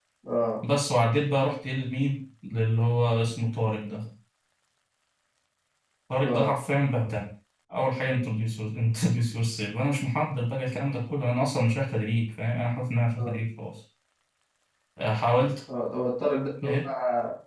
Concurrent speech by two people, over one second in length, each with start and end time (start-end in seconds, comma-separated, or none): none